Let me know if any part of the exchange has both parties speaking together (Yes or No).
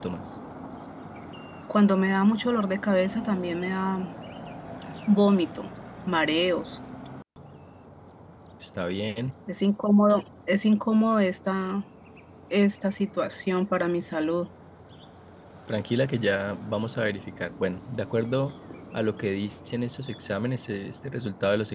No